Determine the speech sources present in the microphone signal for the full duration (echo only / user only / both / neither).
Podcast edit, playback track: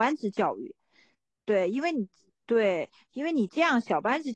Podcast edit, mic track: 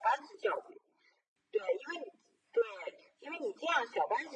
echo only